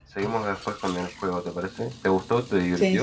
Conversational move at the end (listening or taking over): taking over